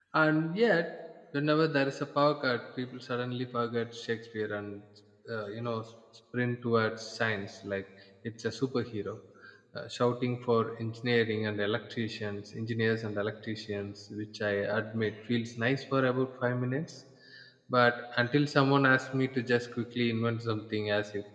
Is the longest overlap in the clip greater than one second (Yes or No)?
No